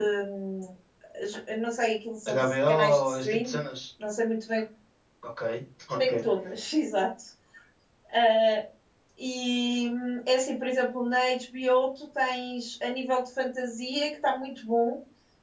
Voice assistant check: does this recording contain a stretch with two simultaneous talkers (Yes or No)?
Yes